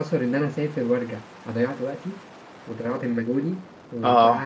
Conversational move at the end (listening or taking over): listening